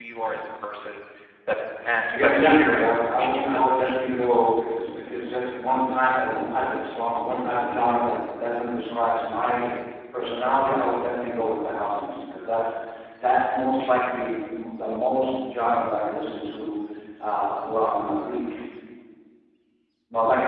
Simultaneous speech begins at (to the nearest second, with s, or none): 2 s